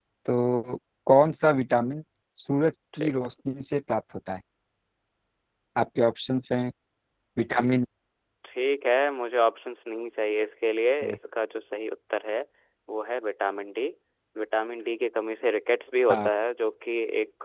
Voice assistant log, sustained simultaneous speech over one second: none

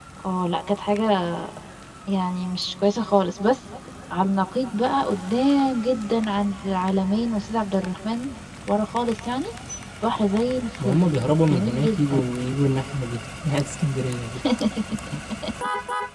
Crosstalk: present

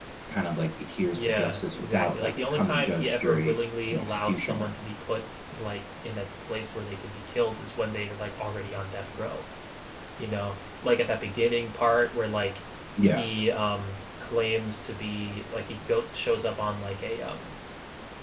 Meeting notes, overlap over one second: present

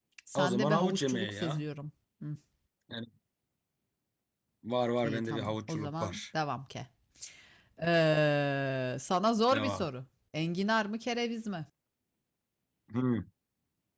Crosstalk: present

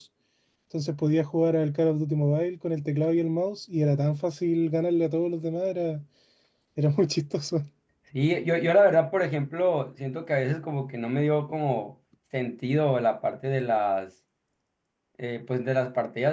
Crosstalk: none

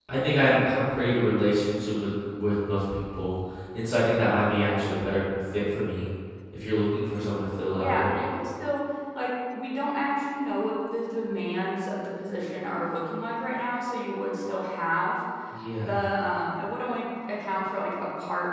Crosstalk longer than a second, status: none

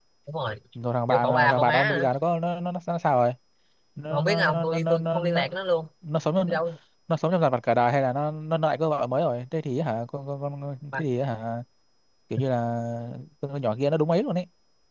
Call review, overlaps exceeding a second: present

